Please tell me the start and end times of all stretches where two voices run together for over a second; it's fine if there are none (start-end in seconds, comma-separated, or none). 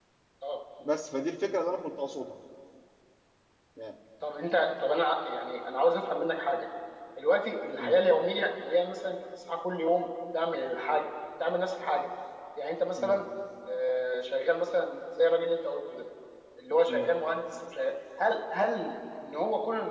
none